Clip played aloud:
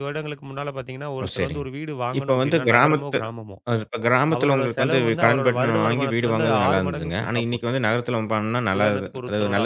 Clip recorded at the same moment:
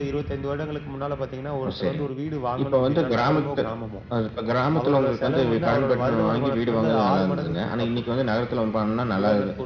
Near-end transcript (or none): none